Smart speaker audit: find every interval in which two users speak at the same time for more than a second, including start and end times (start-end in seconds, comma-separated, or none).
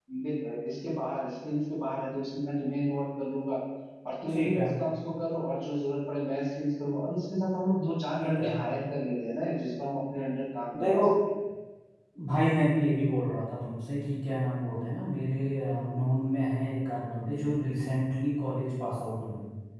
none